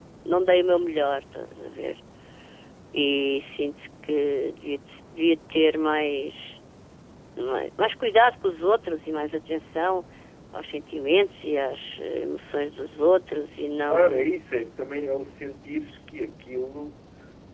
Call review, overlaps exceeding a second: none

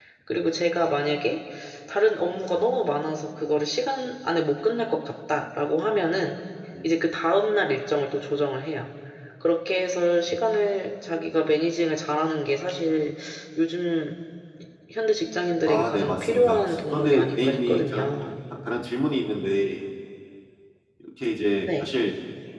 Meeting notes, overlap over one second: present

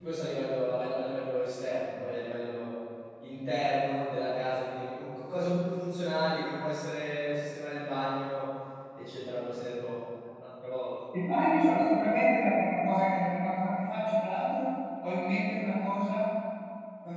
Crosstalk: none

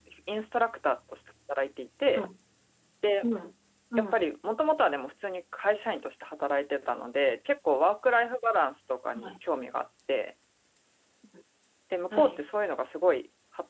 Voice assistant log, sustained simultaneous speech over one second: none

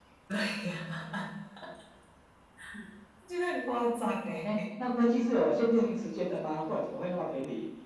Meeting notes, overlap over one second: none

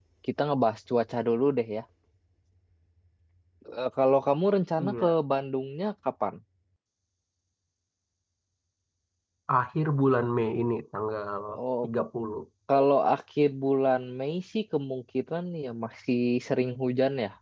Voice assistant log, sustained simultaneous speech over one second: none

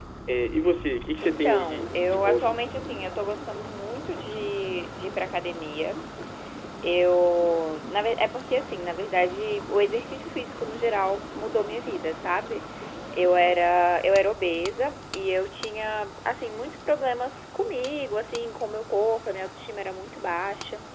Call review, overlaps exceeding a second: present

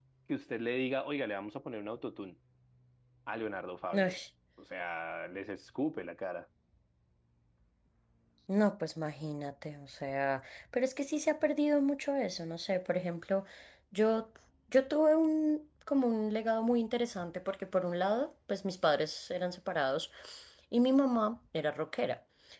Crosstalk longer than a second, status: none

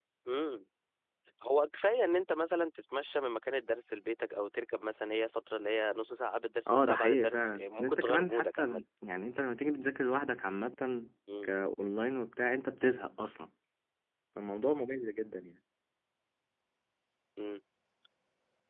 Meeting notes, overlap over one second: present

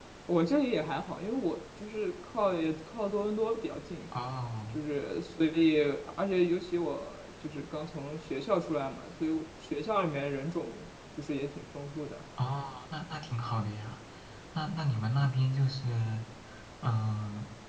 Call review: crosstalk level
none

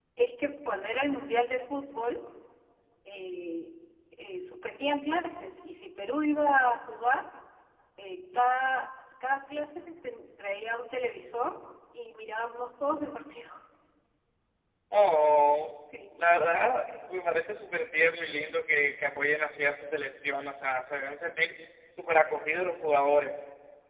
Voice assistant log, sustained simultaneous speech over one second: none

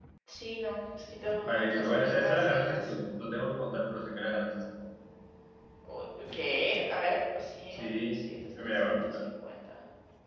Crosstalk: present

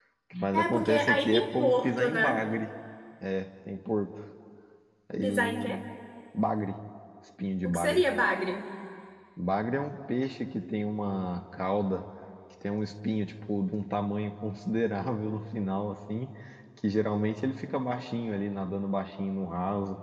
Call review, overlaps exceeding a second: present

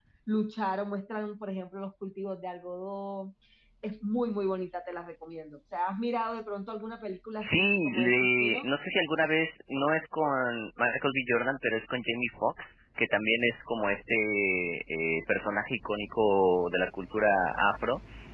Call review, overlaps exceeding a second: present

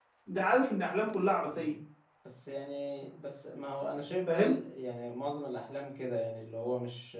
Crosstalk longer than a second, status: none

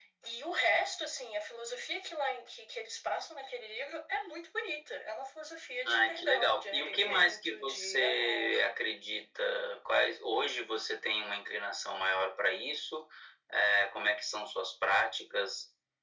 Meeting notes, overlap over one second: present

